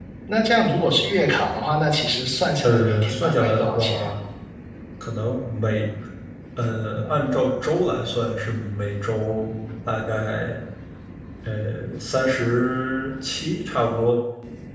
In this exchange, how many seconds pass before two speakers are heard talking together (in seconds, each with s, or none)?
2.6 s